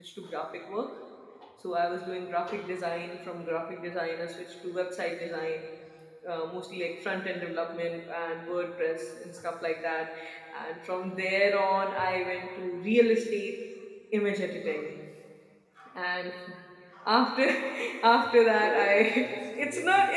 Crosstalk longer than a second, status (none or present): present